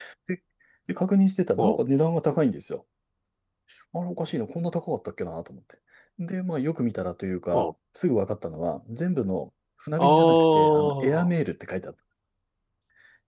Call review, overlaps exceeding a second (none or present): present